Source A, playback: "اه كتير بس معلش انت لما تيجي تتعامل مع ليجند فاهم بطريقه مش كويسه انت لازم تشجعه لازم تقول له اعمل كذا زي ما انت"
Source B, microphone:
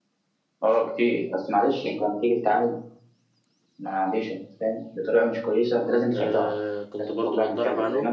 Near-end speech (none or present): present